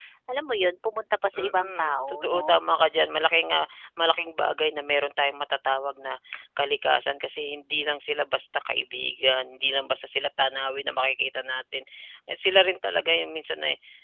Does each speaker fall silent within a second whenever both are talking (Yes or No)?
No